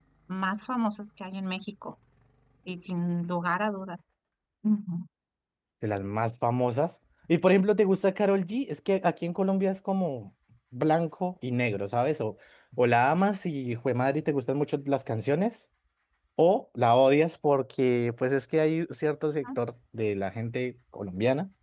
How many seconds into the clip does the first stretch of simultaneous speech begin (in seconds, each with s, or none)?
none